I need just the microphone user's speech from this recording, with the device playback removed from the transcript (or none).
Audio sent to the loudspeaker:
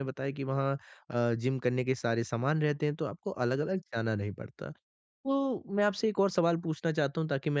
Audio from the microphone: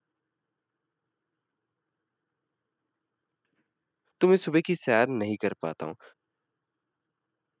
तो मैं सुबह की सैर नहीं कर पाता हूँ।